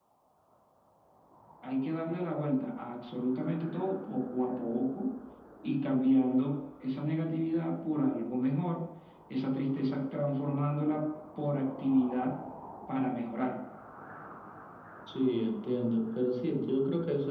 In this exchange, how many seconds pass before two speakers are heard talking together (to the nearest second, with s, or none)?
none